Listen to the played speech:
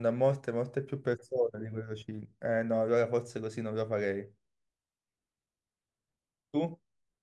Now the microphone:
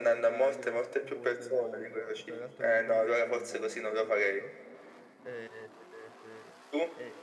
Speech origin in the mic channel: both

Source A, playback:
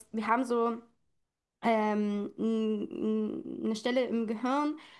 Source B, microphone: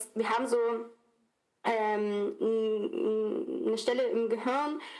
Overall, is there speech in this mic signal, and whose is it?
echo only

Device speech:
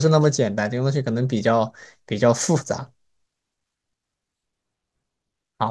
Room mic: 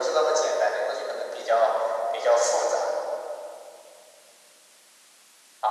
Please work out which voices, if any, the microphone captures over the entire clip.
echo only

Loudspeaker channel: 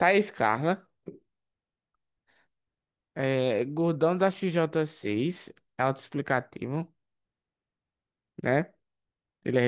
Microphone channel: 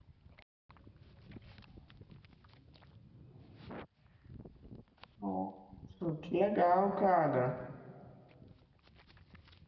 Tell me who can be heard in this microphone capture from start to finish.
user only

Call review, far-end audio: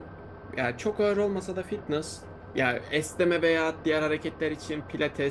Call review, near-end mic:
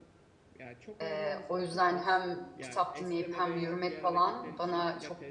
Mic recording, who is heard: both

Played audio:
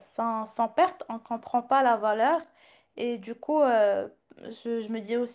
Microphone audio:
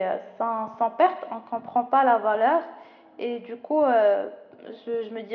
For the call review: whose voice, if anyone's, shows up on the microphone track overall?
echo only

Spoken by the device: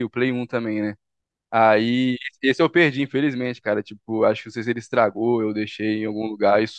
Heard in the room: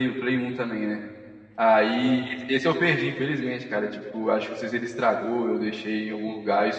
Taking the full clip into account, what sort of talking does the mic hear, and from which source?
echo only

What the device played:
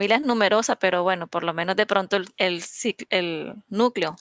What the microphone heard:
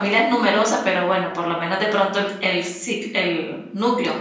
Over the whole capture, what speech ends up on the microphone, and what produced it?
echo only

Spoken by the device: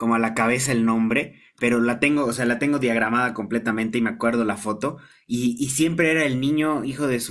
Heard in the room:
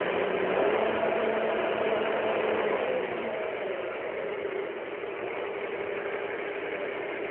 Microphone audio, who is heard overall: neither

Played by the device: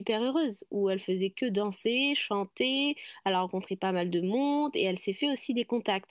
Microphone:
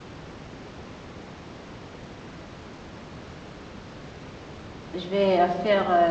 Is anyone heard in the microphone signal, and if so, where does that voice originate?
user only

